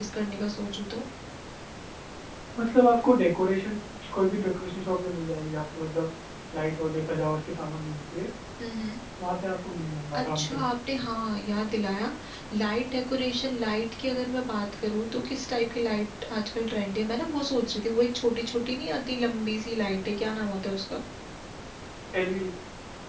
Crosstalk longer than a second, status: none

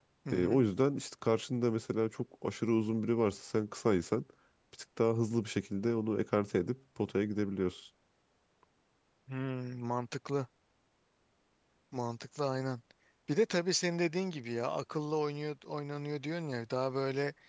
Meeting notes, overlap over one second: none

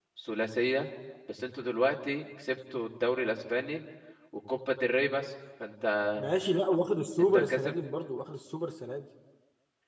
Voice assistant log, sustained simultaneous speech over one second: none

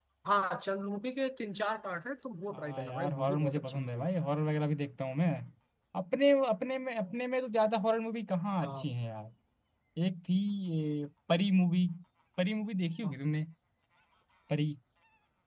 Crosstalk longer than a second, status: present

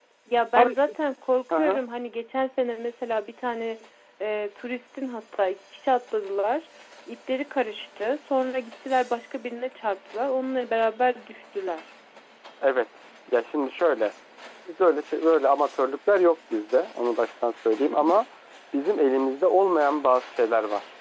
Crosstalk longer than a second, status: none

